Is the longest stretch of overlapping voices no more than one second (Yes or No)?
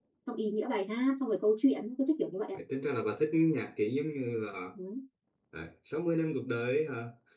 Yes